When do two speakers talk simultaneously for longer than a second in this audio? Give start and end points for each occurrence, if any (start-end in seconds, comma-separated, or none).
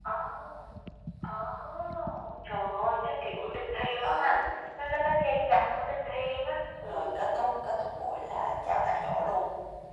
none